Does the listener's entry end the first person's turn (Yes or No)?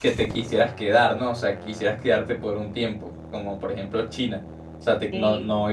No